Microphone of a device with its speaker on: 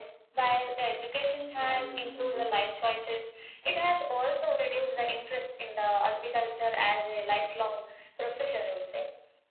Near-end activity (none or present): present